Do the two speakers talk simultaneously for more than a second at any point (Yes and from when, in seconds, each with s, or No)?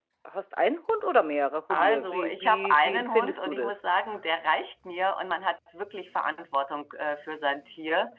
Yes, from 1.7 s